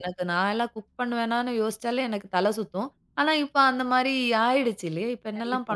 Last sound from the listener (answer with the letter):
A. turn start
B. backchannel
A